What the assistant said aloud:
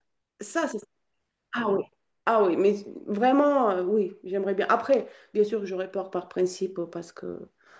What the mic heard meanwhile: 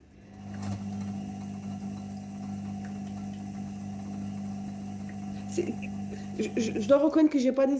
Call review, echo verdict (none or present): none